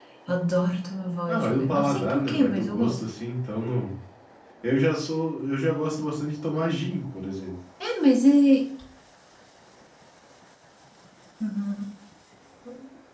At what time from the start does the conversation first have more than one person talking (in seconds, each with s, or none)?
1.3 s